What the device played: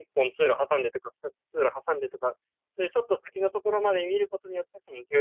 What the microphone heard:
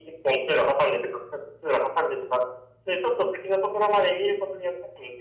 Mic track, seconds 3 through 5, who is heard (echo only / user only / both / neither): echo only